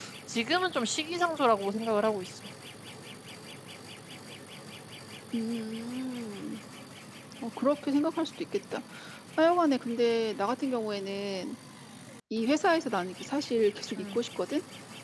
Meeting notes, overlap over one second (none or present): none